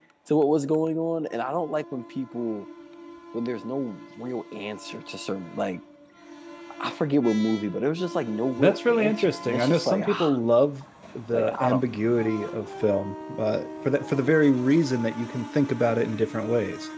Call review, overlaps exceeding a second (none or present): present